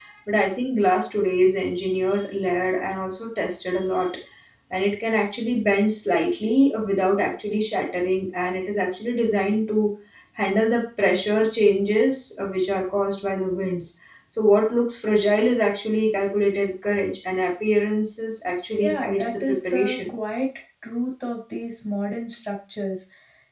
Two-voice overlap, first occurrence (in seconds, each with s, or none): 18.8 s